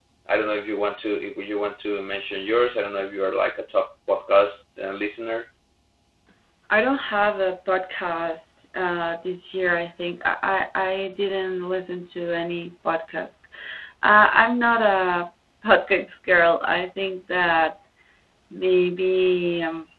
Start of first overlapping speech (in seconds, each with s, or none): none